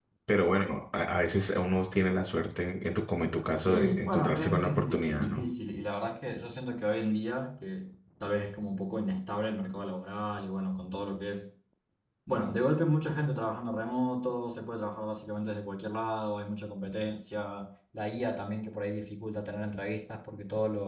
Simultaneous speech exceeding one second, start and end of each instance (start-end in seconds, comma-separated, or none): 3.6-5.4